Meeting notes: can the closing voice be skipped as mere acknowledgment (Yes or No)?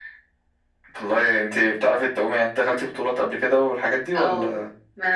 No